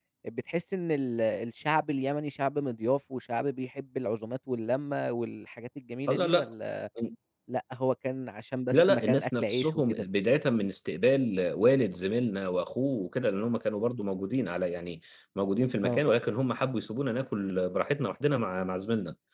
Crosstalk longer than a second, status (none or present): present